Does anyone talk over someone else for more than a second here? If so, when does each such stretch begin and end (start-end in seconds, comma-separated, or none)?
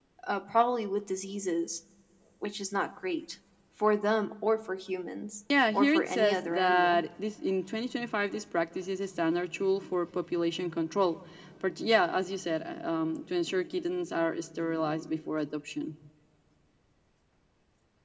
5.7-7.0